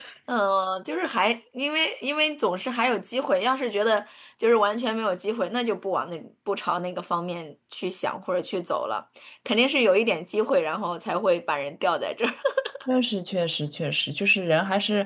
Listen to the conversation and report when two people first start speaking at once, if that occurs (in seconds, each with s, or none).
none